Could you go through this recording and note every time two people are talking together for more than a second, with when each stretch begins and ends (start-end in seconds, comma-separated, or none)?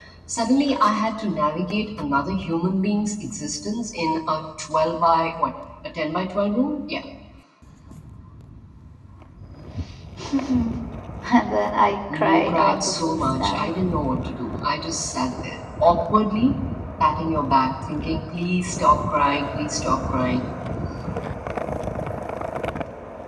12.1-13.7